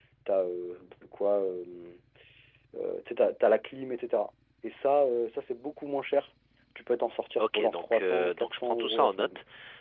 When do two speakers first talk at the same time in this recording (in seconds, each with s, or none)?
7.4 s